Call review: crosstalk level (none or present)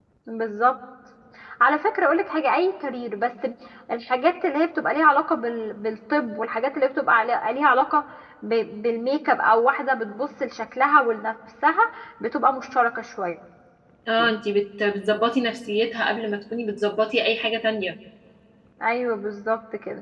none